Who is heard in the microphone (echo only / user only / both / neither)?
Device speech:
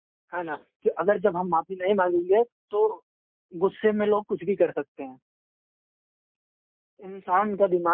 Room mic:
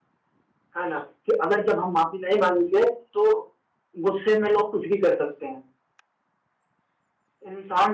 echo only